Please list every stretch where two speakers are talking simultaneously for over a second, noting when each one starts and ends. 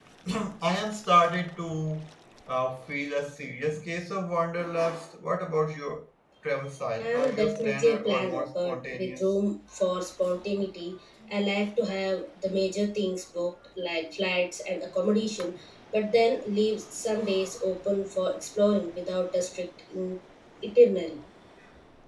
7.0-9.2

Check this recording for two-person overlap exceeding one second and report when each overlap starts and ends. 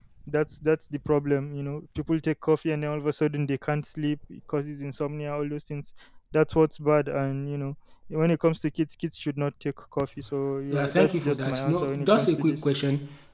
10.7-12.7

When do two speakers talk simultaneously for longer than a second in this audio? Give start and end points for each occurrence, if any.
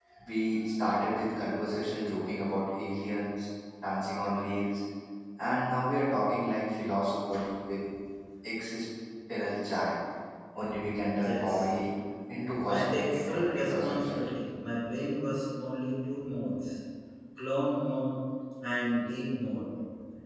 12.7-14.2

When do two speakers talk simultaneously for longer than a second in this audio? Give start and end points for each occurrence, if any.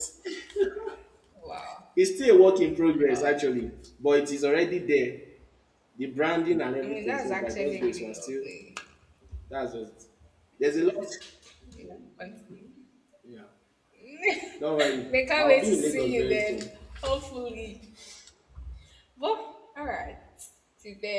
6.8-8.4, 15.1-16.6

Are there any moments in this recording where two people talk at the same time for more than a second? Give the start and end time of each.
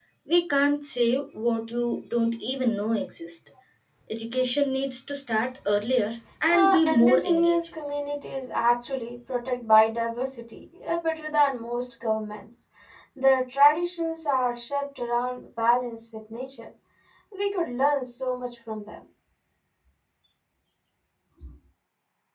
6.5-7.7

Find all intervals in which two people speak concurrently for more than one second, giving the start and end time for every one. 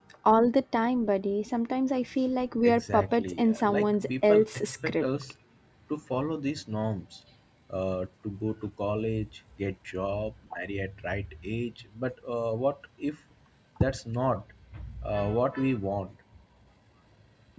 2.6-5.0

